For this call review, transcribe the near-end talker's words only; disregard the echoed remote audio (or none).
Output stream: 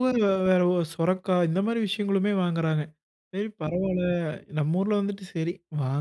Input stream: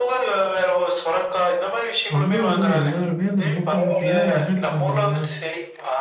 வந்து அதுவும் எல்லோருமே அந்த மூட்ட, மூட்டையா என்ன எடுப்பாங்க தெரியுங்களா?